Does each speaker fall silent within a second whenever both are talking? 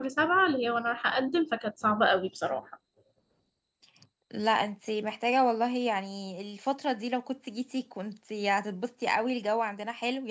Yes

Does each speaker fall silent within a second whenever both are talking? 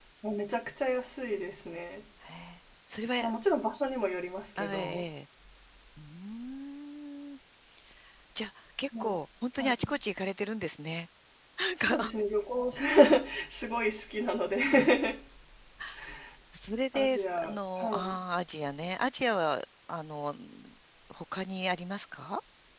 No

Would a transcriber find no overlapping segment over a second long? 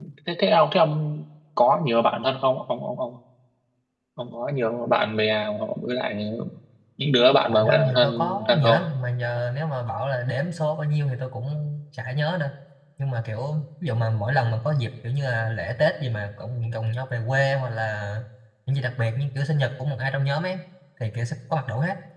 No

